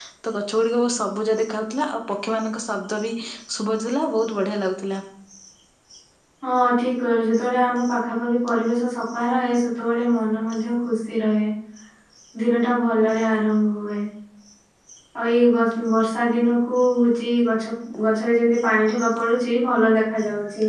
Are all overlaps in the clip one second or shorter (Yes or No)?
Yes